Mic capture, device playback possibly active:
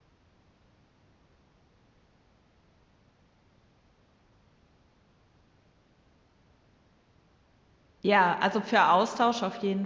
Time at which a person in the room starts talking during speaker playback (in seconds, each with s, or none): 8.0 s